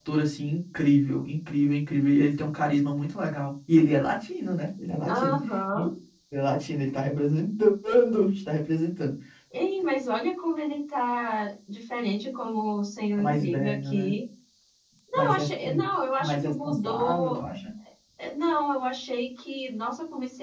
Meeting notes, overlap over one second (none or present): present